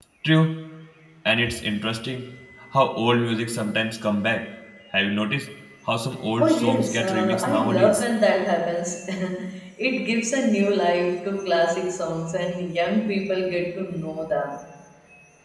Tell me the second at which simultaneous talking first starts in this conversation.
6.4 s

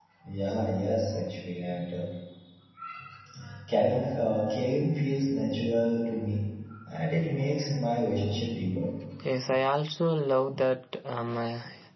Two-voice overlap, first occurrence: none

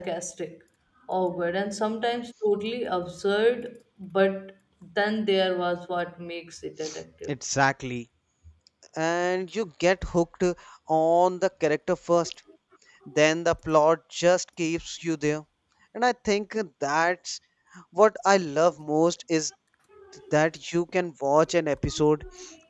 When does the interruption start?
none

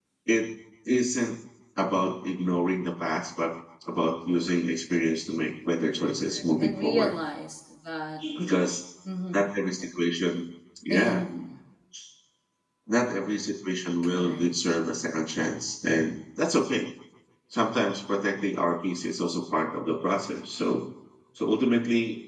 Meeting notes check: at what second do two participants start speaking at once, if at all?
5.9 s

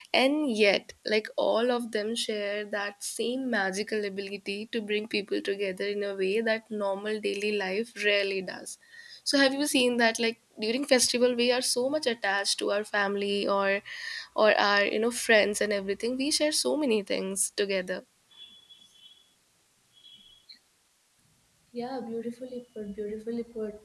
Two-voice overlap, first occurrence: none

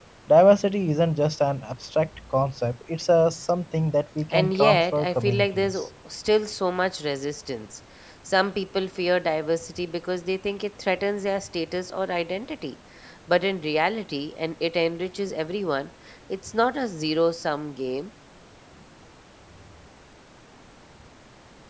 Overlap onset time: 4.3 s

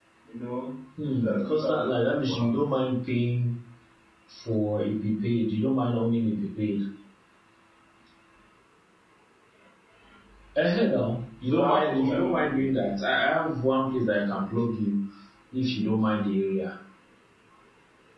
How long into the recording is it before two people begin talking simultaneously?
1.1 s

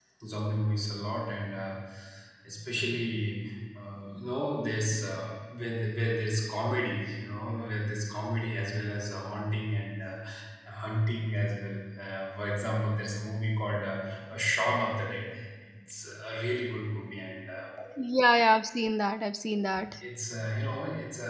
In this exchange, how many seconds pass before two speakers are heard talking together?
none

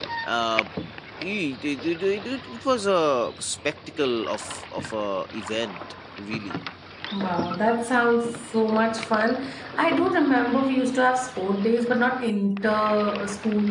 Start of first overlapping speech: none

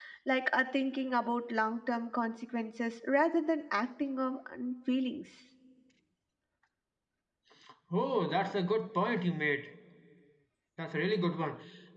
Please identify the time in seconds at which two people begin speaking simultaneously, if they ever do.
none

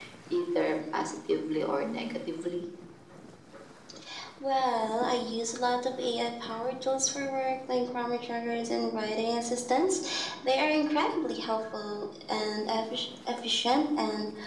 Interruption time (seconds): none

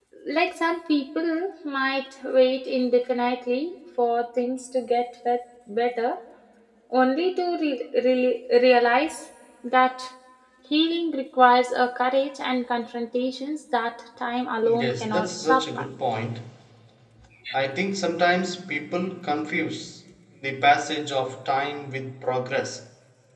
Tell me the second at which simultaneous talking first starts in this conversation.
14.6 s

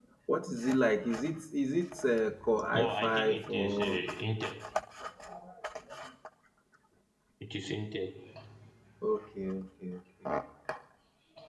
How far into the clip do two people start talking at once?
2.7 s

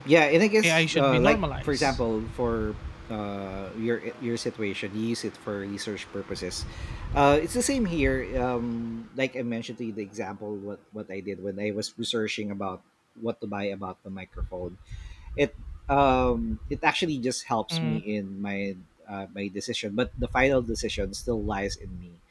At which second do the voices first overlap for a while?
0.6 s

